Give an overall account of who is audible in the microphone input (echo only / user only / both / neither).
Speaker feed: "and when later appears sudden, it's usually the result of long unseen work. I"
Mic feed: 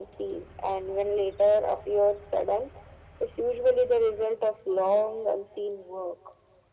echo only